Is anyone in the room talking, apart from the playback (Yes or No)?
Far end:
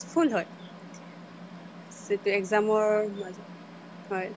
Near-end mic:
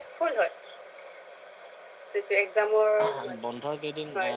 Yes